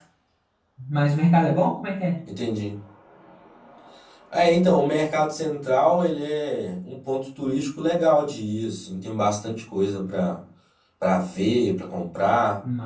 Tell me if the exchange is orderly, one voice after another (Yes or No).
Yes